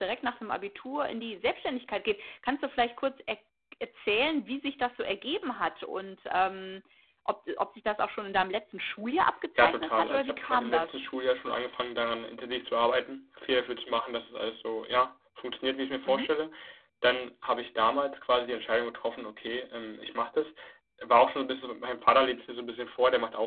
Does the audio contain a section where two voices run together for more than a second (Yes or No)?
Yes